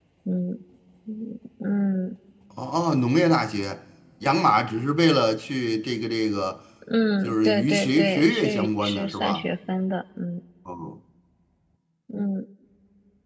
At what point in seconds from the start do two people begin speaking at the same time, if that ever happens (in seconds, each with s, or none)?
7.2 s